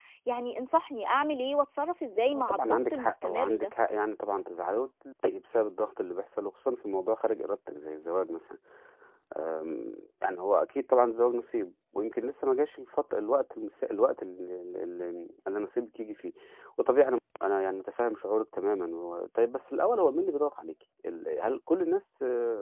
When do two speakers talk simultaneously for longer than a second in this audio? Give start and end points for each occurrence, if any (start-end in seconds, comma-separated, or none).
2.3-3.7